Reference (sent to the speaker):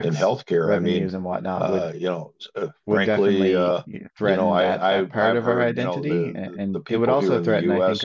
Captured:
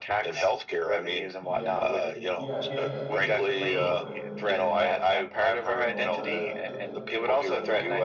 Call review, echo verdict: present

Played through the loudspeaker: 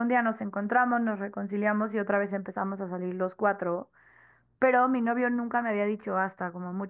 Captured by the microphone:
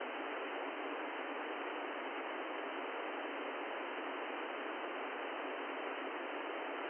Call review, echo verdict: none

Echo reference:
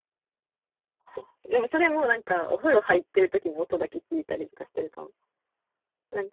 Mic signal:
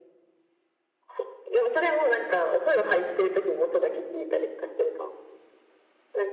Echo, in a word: present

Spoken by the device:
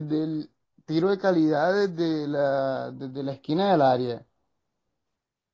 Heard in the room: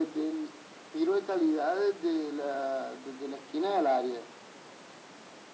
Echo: present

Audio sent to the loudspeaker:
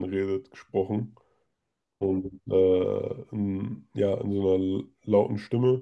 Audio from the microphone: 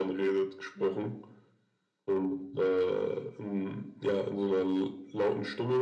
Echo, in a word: present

